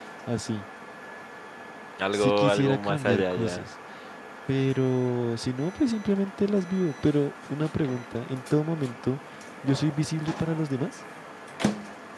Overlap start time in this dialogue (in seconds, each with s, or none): 2.1 s